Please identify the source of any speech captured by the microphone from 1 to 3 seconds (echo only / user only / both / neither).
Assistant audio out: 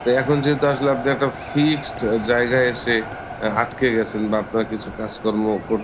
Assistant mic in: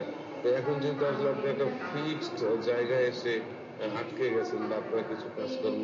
both